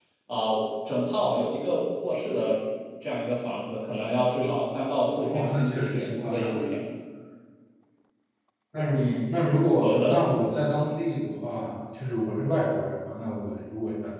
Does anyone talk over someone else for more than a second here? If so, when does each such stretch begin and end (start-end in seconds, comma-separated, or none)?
5.3-6.7